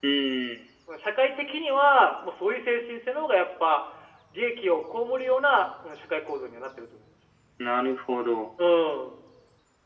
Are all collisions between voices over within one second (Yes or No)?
Yes